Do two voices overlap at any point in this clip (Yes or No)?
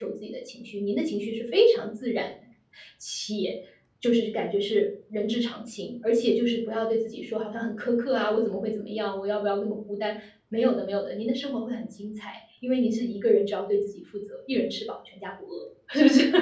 No